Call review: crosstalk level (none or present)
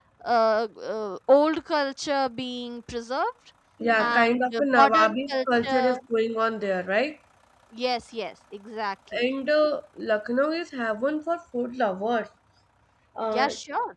present